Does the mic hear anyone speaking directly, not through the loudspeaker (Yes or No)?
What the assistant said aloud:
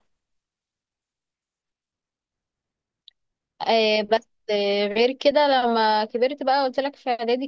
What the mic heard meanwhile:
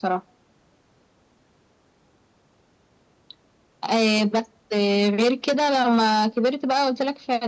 No